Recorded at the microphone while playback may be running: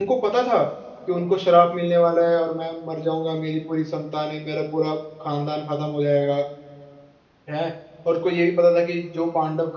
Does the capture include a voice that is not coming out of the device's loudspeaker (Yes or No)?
Yes